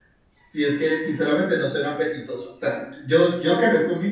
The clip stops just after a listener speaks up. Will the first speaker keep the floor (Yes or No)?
Yes